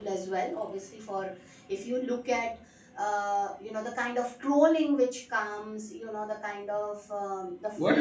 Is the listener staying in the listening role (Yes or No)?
No